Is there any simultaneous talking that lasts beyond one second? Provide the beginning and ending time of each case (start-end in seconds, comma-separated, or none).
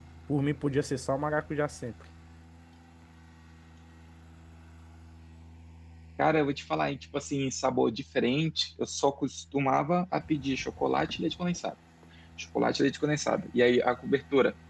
none